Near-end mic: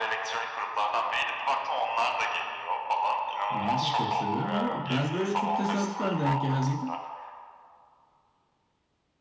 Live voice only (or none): Ben de çok seviyorum ama ben böyle çok tesadüfen denk geldiydim.